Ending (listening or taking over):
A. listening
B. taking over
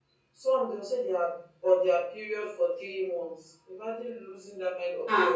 B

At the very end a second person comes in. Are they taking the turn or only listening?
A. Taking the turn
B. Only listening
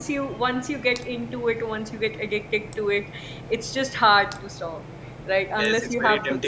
A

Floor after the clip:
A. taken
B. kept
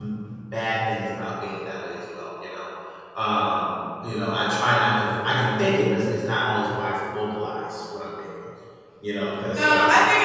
A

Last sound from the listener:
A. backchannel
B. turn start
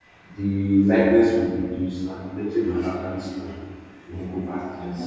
B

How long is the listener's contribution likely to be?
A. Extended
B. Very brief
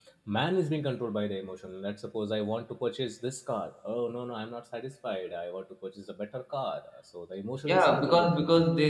A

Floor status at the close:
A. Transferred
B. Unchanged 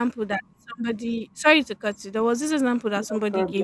B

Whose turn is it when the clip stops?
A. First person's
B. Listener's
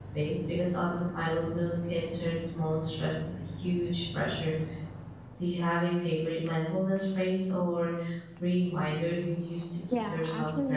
B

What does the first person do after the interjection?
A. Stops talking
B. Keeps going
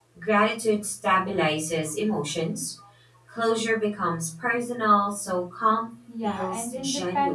A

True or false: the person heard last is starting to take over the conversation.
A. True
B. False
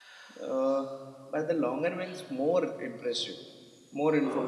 B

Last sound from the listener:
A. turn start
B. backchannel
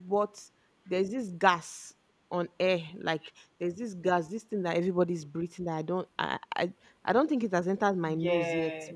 B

